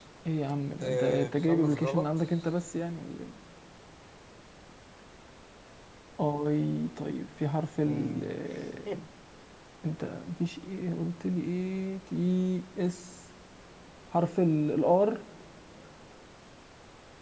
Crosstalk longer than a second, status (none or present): present